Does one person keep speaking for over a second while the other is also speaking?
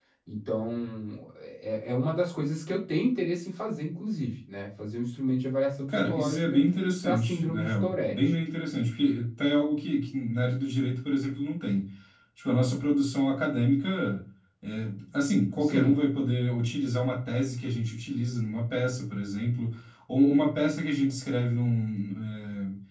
Yes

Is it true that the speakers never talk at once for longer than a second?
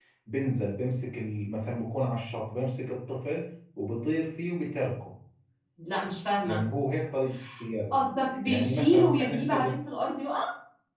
No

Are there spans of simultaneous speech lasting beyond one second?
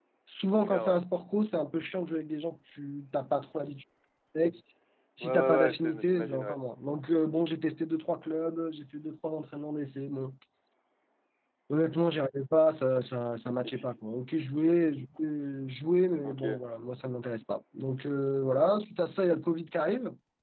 Yes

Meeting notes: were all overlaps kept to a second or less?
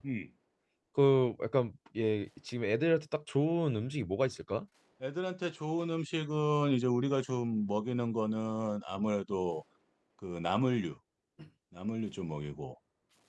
Yes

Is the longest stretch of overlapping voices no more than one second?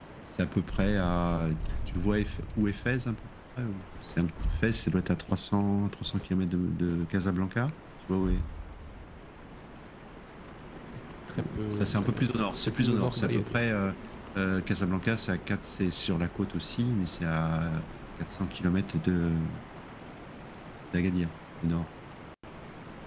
No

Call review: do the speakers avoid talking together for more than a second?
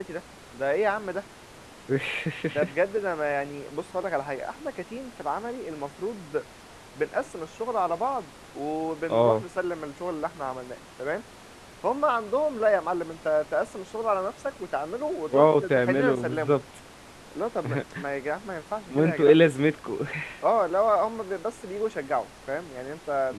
No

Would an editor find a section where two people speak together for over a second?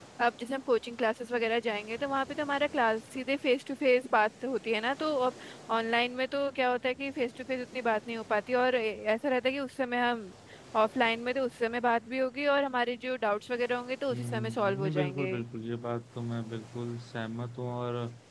Yes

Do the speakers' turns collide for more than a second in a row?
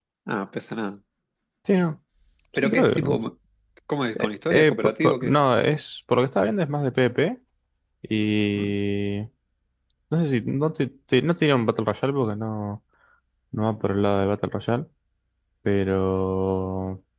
Yes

